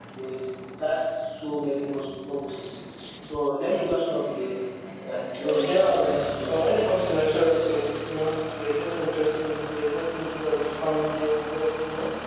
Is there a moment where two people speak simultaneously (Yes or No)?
Yes